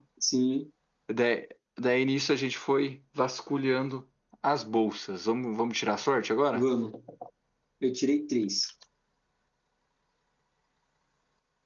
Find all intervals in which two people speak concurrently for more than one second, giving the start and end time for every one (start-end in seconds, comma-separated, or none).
none